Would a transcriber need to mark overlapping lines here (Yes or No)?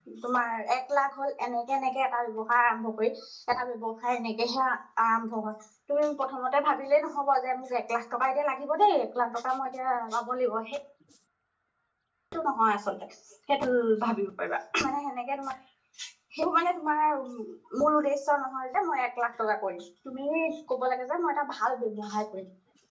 No